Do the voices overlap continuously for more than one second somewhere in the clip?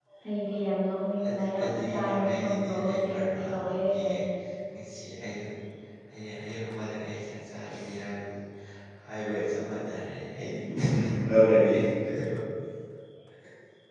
Yes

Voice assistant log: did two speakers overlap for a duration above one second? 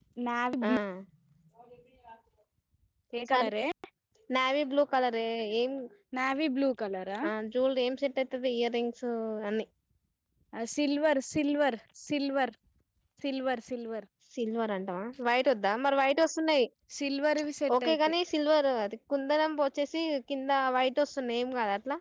No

